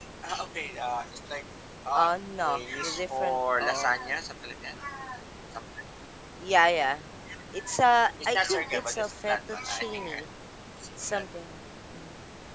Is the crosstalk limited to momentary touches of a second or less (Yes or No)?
No